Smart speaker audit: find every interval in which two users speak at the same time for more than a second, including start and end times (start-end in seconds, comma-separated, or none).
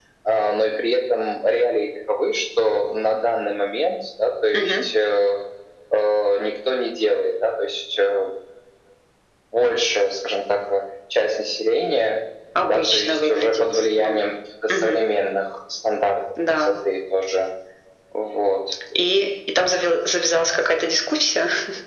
12.7-14.2